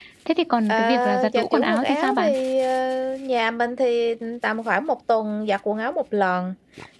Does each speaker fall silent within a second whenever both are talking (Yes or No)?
No